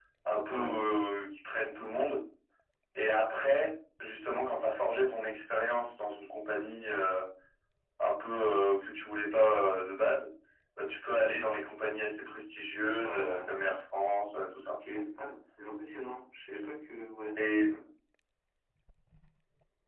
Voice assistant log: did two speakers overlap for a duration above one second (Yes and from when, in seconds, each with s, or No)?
No